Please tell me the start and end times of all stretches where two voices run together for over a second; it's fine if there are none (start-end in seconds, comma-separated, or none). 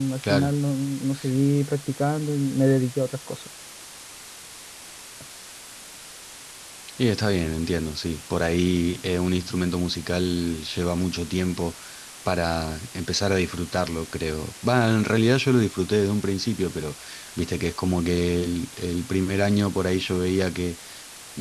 none